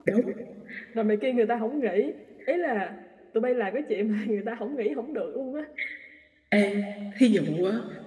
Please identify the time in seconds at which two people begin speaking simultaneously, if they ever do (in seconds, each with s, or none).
none